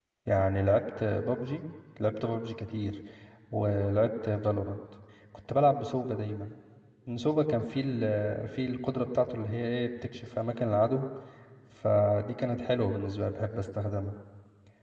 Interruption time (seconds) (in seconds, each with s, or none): none